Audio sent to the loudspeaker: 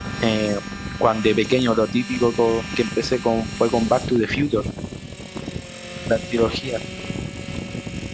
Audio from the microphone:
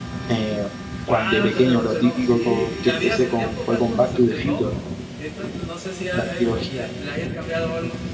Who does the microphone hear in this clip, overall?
both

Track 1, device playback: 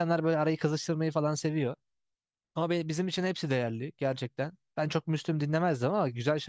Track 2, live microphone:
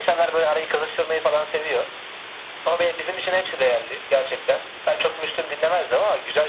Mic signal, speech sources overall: echo only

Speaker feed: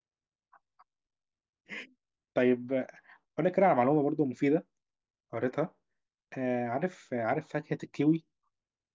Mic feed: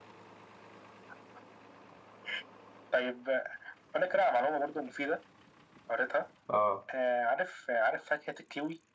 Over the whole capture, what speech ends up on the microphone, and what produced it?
both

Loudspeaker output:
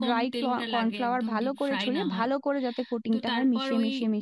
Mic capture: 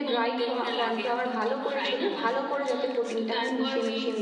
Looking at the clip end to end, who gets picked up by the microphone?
echo only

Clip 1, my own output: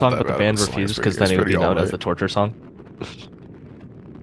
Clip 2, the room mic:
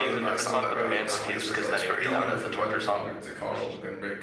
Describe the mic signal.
both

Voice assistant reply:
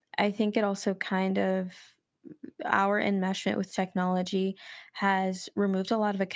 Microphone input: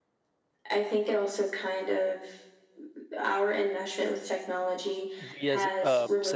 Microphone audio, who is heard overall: both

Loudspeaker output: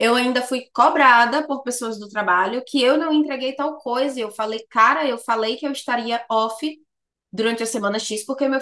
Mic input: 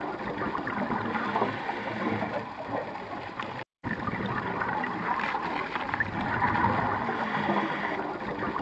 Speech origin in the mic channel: neither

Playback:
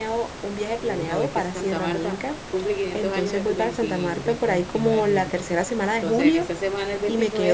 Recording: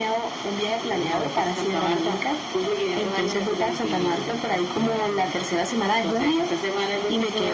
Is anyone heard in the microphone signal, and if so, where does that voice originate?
echo only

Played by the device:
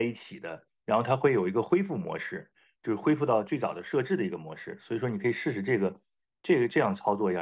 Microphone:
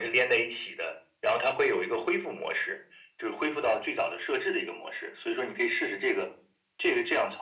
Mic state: echo only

